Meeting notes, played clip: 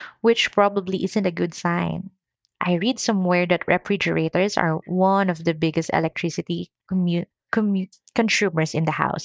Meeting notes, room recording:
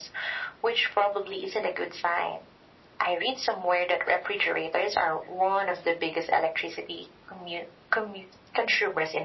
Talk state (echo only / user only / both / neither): echo only